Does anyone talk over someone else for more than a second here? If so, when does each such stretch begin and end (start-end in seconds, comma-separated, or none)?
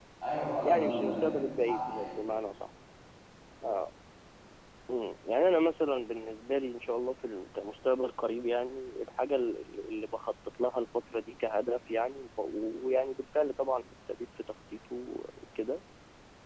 0.6-2.2